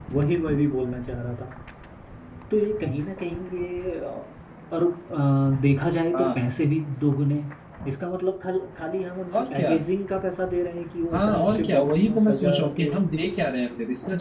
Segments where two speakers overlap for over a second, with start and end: 11.1-12.9

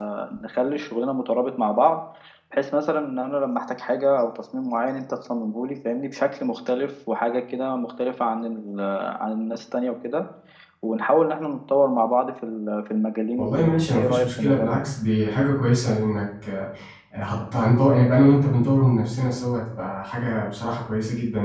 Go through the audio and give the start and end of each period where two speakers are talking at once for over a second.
13.4-14.8

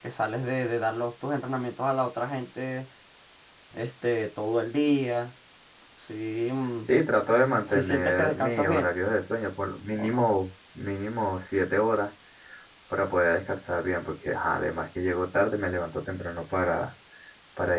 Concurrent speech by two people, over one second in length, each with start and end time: 7.6-8.9

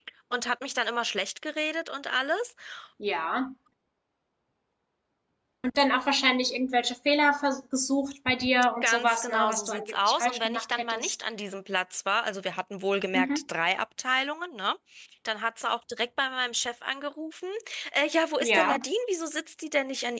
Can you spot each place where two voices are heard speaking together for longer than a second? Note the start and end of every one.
8.8-11.2

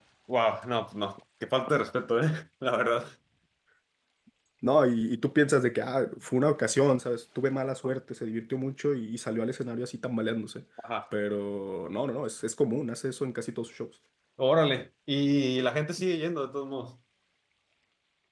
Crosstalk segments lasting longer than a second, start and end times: none

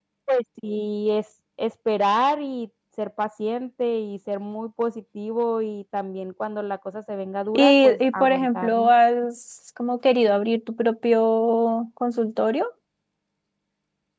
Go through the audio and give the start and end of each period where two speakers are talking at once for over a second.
7.5-8.9

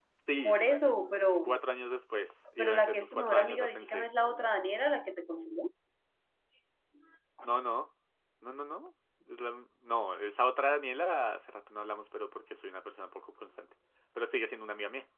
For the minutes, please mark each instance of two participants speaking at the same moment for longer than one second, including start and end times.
2.6-4.1

